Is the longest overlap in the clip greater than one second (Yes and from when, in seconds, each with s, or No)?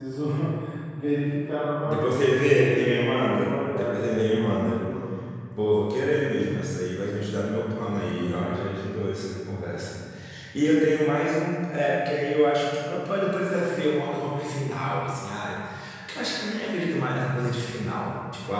Yes, from 1.8 s